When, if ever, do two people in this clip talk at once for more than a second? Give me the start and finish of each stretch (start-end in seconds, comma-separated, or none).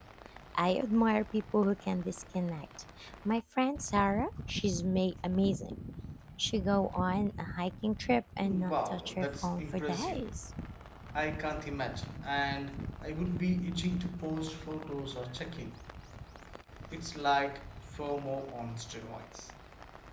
8.4-10.2